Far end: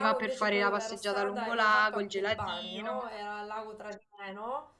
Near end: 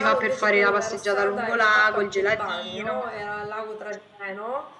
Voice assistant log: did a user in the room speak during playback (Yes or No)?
No